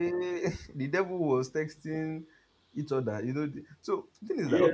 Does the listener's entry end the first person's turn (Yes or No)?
Yes